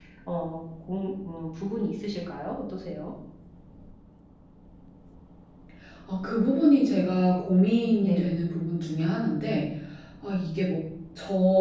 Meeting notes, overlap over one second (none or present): none